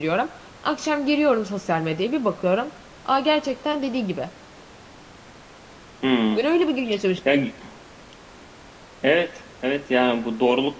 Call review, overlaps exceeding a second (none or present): none